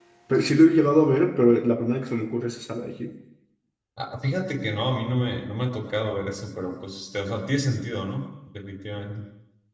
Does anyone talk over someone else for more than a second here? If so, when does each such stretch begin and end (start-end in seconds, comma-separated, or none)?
none